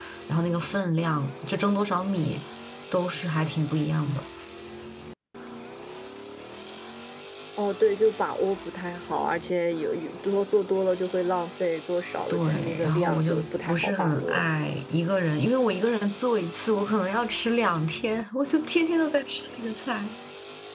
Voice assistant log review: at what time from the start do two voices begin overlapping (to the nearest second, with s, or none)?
12 s